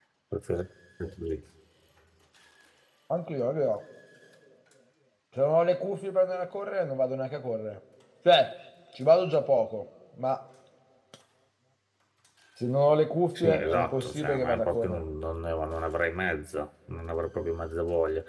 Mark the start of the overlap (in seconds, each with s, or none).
13.4 s